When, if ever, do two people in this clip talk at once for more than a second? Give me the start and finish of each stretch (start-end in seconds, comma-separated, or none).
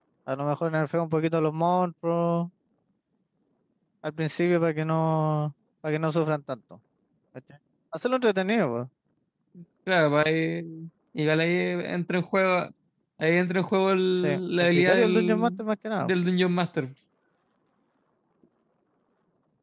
14.2-15.5